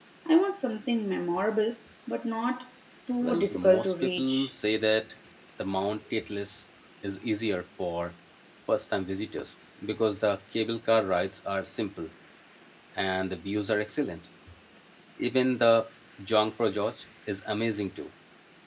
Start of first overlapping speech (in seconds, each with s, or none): 3.2 s